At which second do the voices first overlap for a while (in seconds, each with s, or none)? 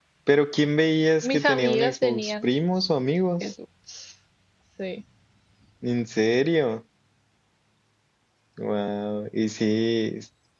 1.2 s